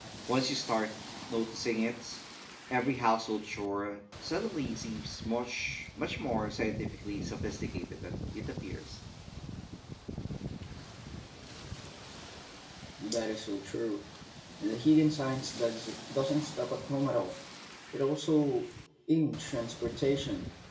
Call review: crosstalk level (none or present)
none